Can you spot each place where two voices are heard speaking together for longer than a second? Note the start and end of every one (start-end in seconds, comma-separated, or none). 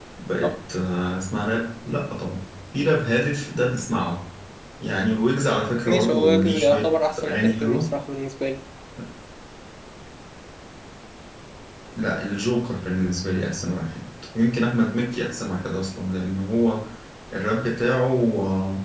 5.9-7.9